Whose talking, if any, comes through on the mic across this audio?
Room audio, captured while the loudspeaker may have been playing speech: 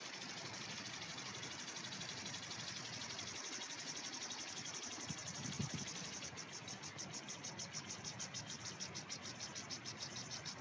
neither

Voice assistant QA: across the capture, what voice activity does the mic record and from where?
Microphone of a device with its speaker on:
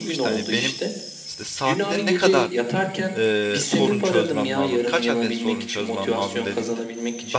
both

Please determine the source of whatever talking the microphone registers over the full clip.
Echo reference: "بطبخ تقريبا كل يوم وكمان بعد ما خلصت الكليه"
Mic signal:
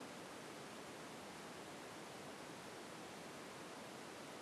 neither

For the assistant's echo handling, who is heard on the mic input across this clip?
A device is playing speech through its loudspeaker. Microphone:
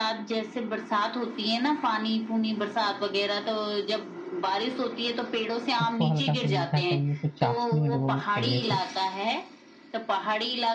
both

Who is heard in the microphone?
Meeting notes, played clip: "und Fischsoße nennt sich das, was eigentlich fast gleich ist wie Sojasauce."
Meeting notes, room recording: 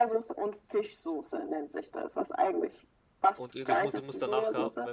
both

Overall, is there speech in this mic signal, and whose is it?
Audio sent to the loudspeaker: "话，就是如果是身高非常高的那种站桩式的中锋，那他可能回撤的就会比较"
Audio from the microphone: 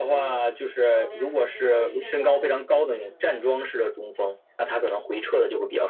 both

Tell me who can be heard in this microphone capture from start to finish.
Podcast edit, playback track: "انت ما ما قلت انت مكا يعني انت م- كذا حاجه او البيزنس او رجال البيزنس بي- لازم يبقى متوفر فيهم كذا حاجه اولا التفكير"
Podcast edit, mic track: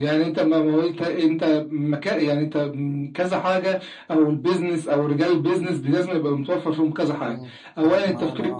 both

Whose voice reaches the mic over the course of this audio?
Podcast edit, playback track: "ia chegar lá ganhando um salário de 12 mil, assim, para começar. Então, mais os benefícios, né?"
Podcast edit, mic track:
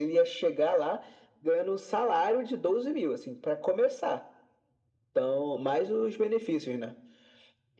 echo only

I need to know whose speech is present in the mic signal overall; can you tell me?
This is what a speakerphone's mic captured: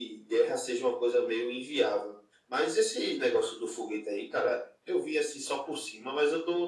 echo only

